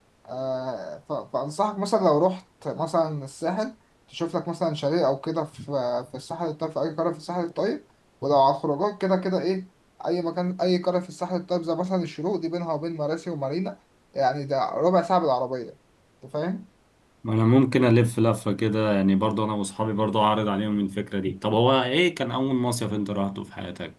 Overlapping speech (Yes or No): No